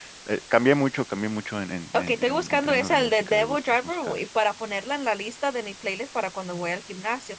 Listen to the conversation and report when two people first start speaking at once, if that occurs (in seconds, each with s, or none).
1.9 s